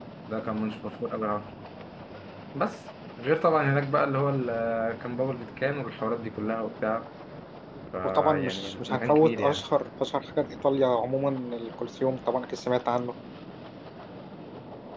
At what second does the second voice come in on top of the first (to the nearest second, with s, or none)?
8 s